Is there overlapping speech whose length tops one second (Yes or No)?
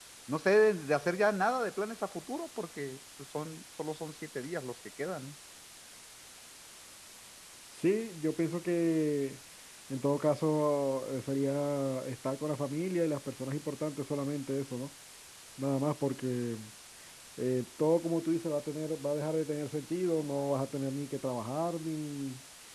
No